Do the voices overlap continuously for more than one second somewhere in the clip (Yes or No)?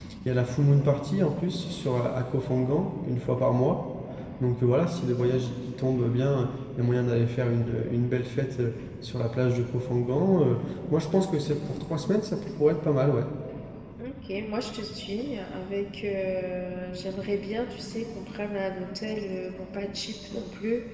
No